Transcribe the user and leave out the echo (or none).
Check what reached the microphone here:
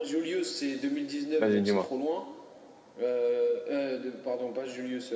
Vas-y, dis-moi.